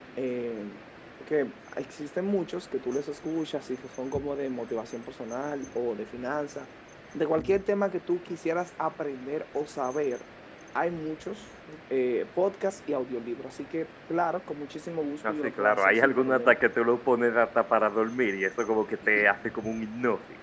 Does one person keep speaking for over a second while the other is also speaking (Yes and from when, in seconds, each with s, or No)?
Yes, from 15.2 s